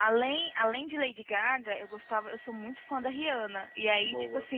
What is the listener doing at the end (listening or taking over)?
listening